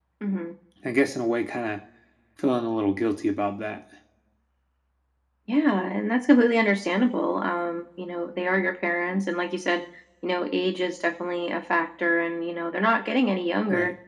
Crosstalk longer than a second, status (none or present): none